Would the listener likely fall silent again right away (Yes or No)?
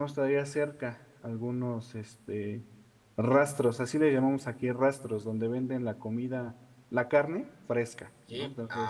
No